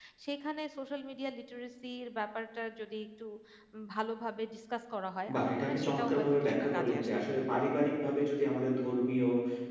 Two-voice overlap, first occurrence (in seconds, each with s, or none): 5.3 s